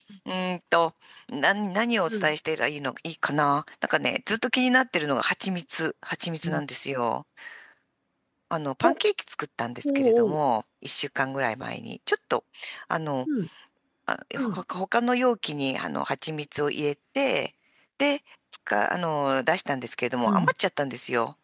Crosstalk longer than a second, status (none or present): none